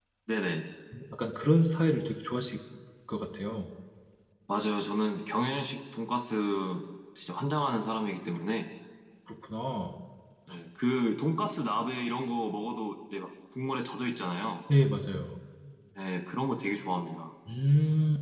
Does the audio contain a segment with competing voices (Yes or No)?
No